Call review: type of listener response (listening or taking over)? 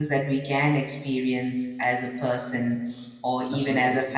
listening